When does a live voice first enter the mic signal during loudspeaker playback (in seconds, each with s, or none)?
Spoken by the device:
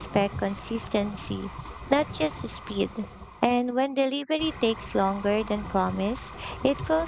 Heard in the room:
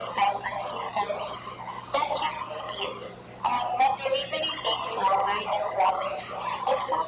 none